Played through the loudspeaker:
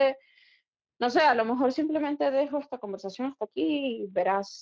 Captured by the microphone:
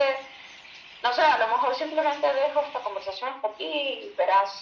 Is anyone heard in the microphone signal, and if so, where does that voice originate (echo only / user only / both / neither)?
echo only